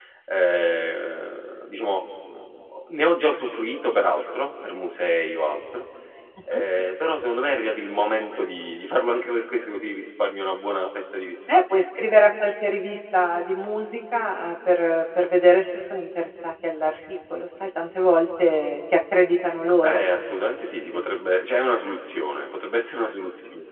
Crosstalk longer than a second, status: none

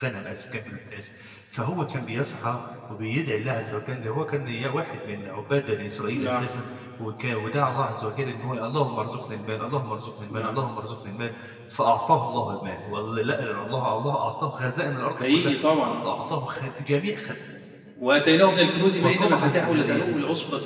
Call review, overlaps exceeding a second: present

